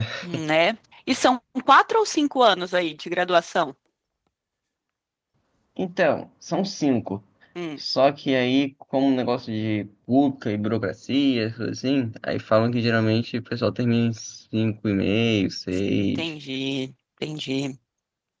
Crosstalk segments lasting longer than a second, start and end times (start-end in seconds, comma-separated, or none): none